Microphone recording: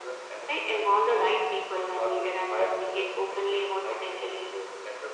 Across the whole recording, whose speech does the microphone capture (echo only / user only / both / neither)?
echo only